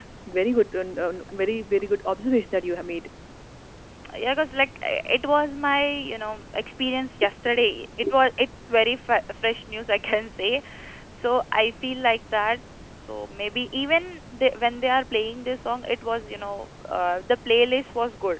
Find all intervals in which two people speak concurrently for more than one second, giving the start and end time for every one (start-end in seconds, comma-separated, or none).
none